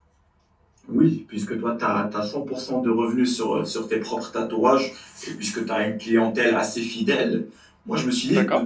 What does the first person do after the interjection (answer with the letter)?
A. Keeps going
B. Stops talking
A